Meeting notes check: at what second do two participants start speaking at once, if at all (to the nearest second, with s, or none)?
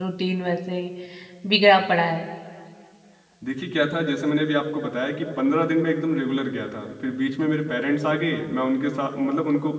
none